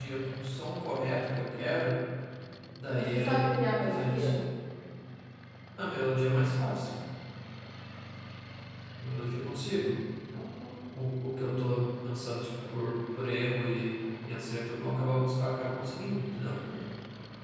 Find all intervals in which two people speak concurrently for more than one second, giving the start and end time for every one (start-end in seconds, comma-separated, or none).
3.0-4.4